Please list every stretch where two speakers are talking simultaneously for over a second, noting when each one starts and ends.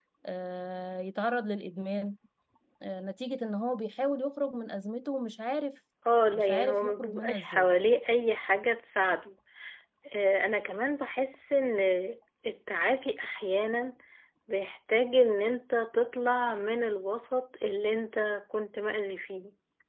6.3-7.7

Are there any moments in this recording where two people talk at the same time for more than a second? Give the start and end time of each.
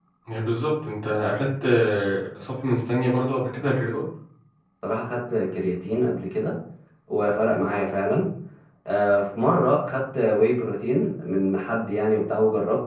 none

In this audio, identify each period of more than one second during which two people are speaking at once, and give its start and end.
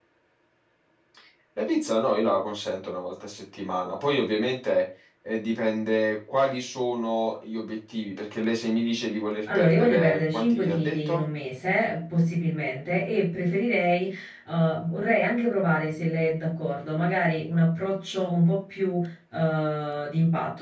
9.6-11.2

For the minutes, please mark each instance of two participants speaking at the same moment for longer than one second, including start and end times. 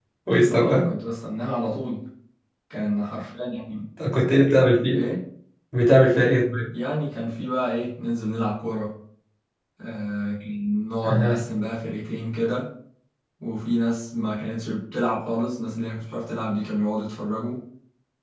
none

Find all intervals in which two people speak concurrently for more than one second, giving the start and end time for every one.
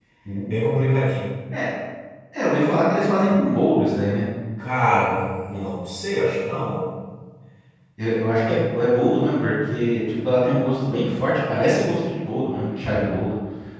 none

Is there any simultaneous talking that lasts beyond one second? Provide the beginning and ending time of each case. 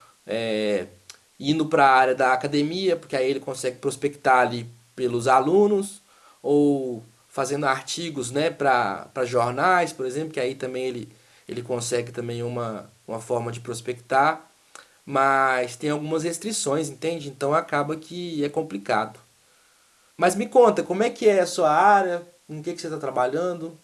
none

